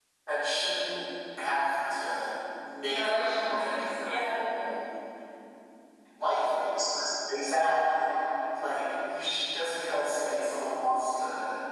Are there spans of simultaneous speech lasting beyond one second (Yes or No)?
Yes